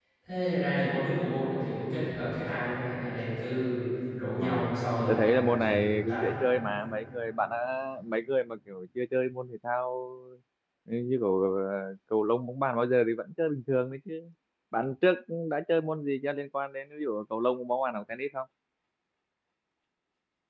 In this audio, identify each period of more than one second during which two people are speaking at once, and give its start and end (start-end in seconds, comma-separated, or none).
5.1-6.3